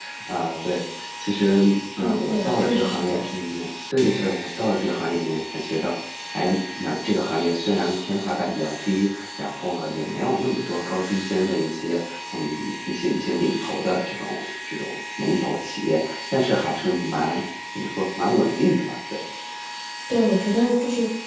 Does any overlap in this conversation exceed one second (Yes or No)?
Yes